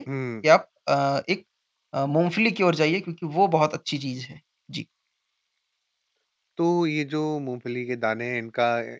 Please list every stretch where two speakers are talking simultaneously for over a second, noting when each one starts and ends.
none

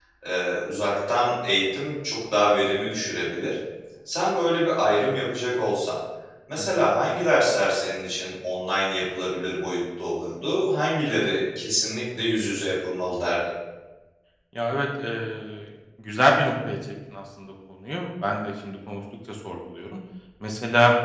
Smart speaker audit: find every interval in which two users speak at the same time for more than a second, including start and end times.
none

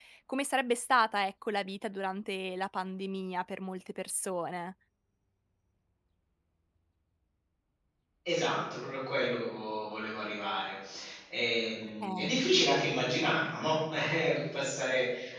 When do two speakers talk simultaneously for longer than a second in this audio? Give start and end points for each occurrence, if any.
none

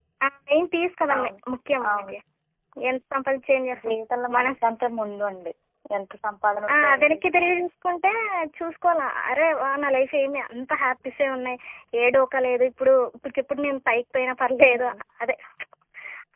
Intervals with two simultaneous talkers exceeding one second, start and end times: none

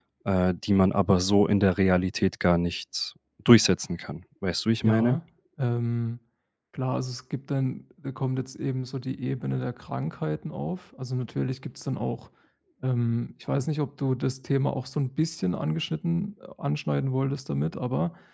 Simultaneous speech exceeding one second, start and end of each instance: none

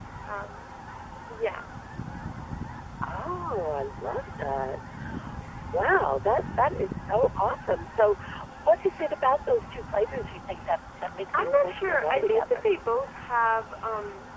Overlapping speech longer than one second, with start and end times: 11.3-12.6

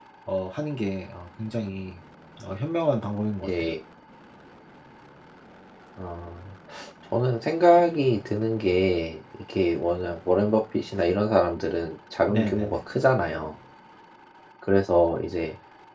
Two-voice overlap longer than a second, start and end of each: none

